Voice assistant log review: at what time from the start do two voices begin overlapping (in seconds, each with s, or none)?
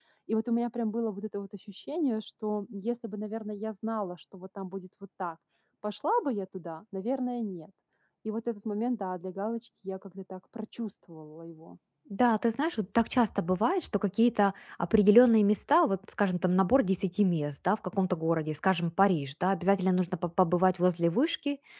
none